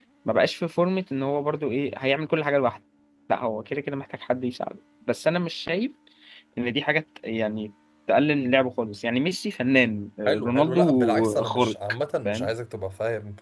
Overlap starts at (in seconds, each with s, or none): 10.2 s